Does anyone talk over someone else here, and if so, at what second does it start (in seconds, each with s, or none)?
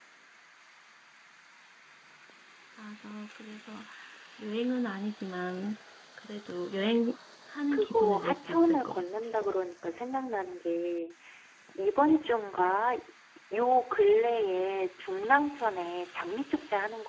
7.7 s